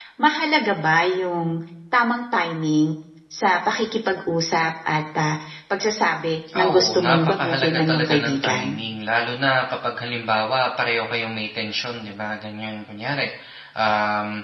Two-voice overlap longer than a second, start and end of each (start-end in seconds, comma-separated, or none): 6.5-8.7